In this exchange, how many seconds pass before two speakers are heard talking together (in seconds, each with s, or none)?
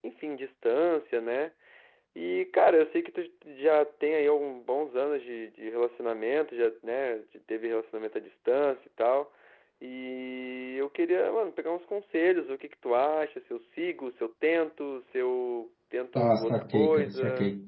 16.1 s